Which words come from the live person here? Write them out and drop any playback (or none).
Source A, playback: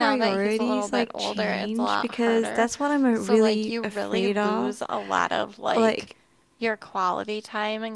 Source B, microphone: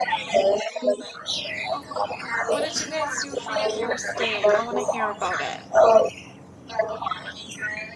Oh, what did you guys do for your first date? I want to hear about it.